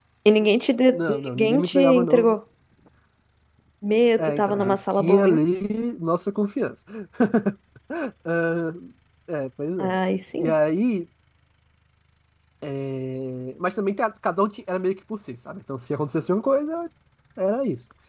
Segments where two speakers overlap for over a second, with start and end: 0.9-2.4, 4.2-5.4

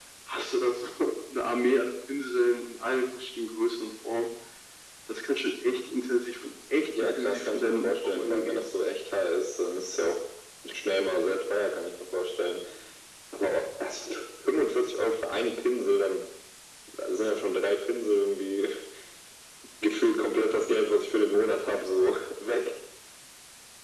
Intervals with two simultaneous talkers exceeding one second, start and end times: 7.0-8.6

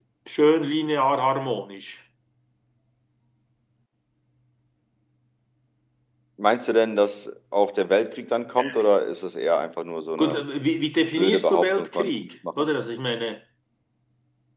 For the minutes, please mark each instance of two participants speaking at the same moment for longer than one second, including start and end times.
11.2-12.7

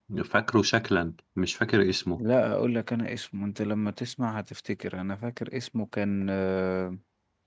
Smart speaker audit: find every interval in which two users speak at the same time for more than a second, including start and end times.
none

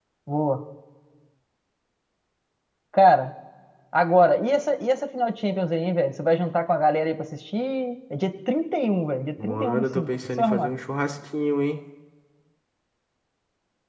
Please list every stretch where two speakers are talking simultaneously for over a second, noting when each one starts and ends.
9.4-10.7

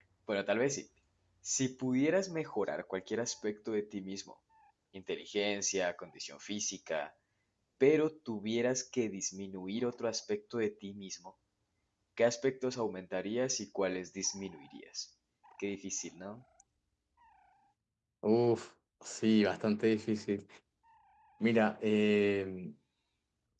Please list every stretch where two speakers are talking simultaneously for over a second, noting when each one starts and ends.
none

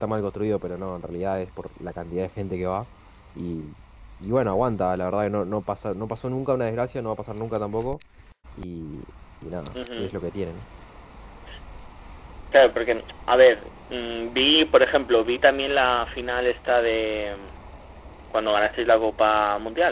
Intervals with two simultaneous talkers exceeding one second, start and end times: none

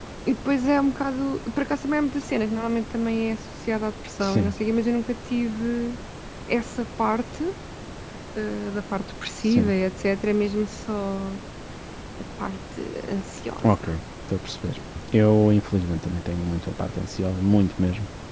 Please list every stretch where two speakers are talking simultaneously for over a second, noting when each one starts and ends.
none

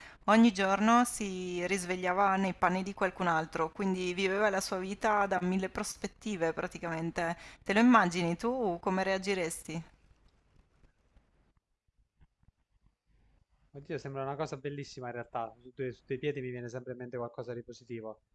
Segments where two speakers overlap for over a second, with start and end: none

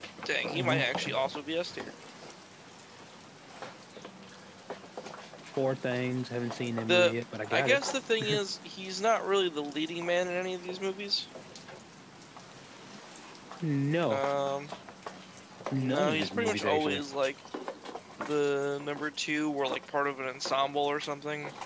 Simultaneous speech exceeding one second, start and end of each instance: 15.8-17.0

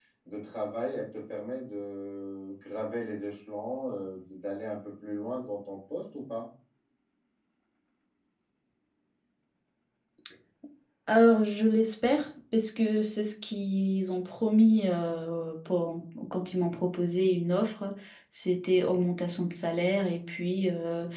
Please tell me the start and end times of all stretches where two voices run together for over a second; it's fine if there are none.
none

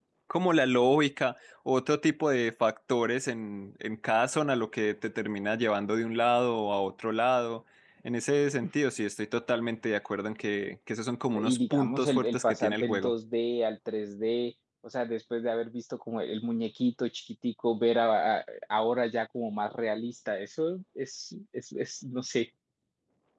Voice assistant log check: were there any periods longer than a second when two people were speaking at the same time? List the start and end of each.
11.3-13.1

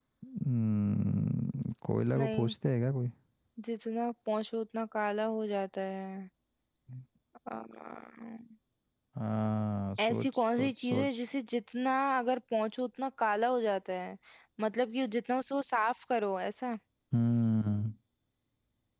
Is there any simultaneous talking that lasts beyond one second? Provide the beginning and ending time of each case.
10.0-11.2

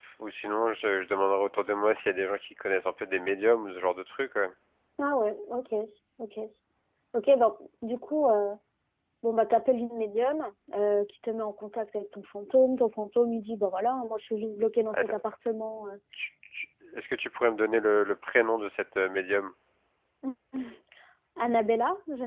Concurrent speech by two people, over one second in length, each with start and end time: none

